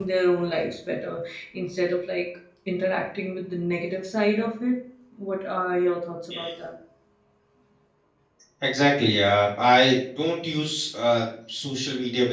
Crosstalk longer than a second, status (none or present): none